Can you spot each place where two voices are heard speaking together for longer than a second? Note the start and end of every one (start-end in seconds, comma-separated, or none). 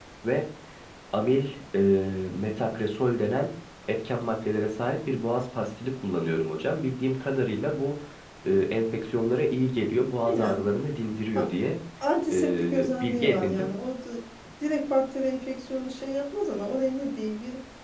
12.3-13.7